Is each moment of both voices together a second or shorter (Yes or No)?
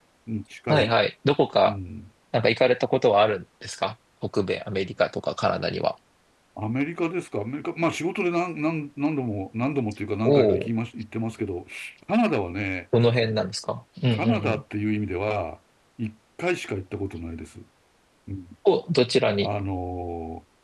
Yes